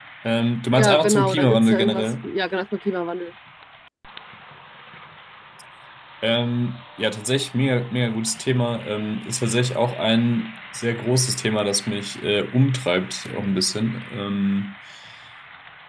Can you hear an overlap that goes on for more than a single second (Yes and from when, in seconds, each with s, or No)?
Yes, from 0.7 s